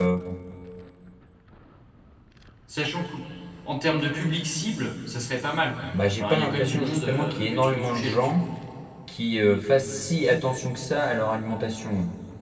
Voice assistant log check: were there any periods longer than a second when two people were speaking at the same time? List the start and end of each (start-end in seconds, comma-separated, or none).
5.9-8.4